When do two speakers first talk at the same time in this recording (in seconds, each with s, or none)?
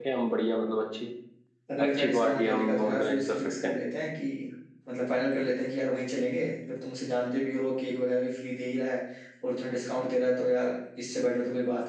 1.8 s